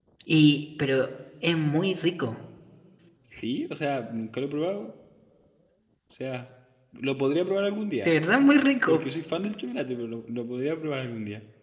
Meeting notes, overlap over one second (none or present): none